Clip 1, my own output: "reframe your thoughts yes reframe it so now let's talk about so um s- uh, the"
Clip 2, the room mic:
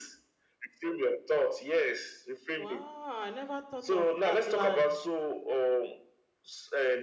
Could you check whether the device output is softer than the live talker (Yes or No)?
No